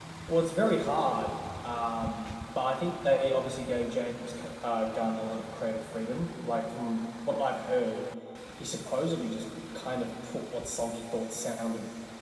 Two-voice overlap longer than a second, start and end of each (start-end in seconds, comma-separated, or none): none